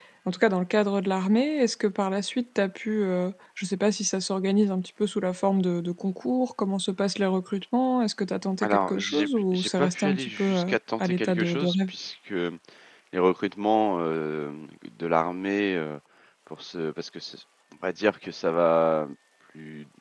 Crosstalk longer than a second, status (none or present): present